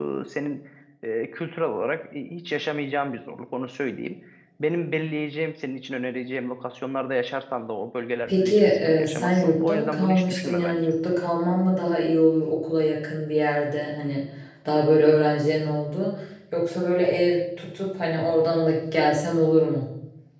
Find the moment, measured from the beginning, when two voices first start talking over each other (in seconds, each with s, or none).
8.3 s